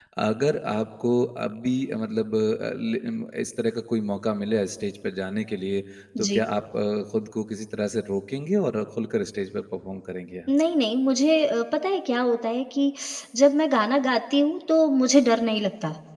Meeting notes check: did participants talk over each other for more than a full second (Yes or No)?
No